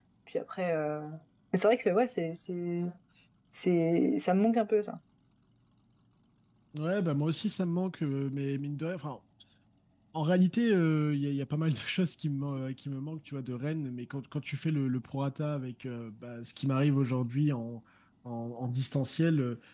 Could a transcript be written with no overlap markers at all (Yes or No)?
Yes